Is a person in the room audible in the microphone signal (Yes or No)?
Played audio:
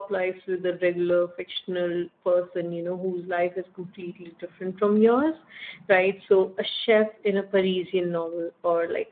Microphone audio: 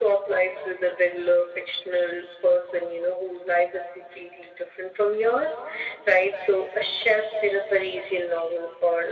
No